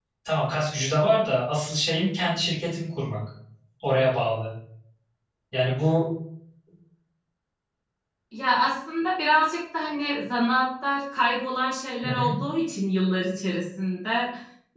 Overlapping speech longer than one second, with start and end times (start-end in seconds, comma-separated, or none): none